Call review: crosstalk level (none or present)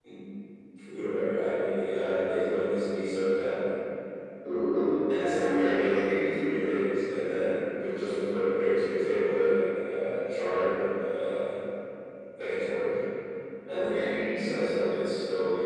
present